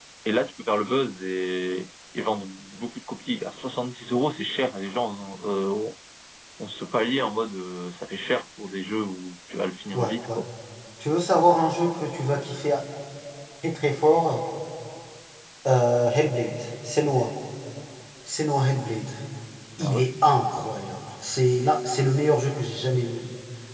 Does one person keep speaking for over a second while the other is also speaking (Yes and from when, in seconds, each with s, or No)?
No